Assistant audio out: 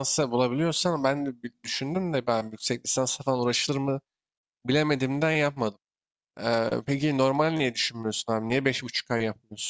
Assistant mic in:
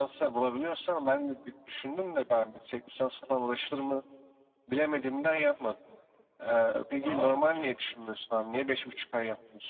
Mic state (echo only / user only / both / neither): both